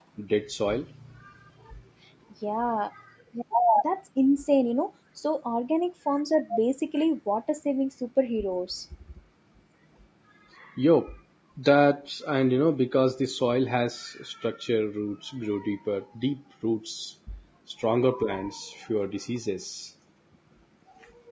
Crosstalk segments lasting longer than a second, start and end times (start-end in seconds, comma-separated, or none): none